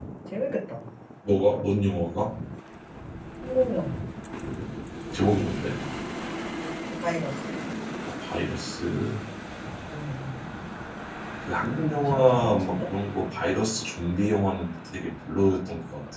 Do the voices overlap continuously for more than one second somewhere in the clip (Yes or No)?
Yes